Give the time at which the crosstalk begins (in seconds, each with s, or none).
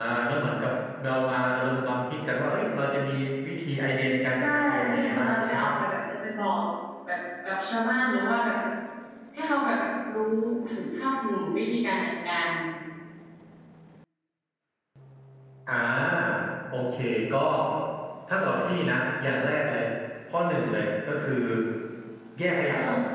4.4 s